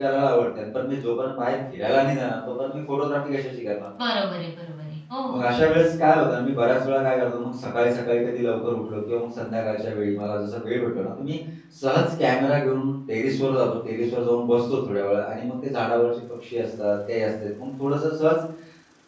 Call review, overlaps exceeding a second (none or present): none